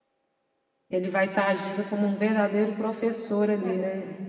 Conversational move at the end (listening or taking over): taking over